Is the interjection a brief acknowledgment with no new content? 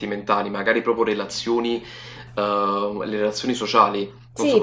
No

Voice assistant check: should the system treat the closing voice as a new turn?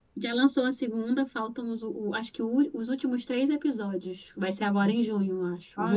Yes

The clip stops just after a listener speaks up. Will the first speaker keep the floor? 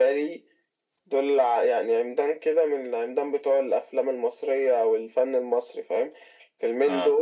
Yes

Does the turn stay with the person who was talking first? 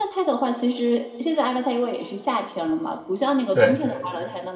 Yes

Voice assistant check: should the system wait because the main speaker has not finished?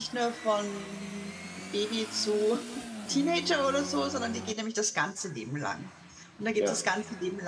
Yes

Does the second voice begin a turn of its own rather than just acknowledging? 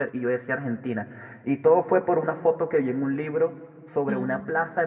No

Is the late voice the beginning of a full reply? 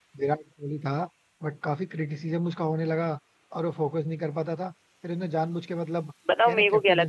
Yes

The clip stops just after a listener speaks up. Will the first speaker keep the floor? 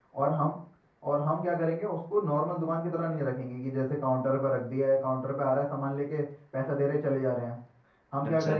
Yes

